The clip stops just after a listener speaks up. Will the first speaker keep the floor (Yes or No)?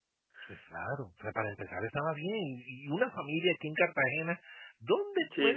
Yes